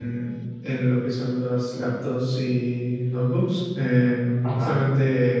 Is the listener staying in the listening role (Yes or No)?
Yes